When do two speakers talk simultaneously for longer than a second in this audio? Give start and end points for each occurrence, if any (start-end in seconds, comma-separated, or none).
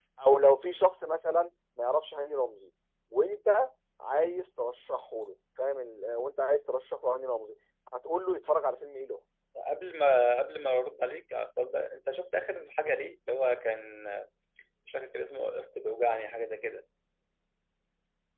none